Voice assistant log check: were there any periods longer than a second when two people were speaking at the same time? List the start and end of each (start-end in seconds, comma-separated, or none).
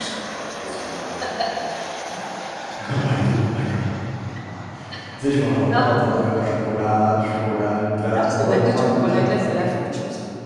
8.1-9.6